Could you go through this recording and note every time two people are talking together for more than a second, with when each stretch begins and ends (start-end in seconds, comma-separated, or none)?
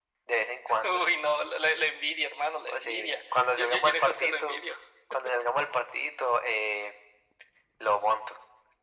2.7-4.6